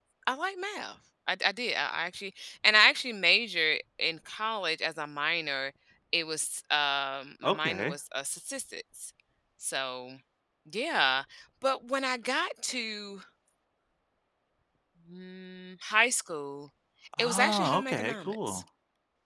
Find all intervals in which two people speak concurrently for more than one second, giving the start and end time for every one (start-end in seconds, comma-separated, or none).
17.2-18.6